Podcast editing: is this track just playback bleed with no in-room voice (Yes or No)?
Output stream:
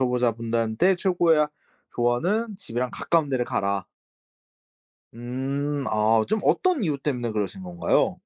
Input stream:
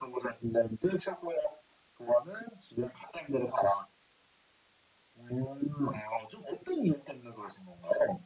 Yes